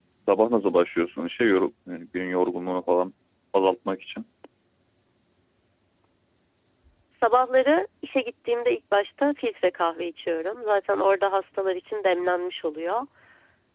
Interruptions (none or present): none